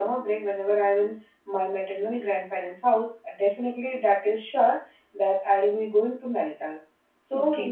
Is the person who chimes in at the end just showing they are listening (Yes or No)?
Yes